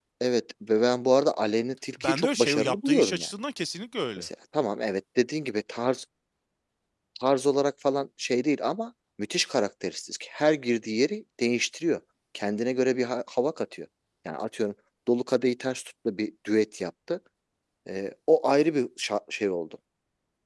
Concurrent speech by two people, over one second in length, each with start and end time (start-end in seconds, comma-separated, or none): 2.0-3.3